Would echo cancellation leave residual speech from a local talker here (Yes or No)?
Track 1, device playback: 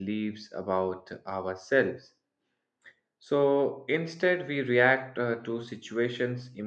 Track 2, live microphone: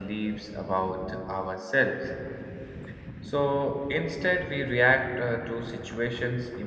No